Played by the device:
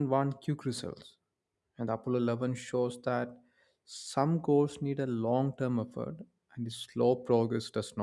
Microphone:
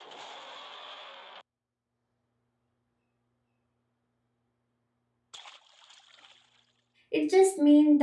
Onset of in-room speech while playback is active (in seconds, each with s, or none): 7.1 s